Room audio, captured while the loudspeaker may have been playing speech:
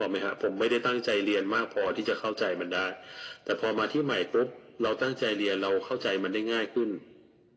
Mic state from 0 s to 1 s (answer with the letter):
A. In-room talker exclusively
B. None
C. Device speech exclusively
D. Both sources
C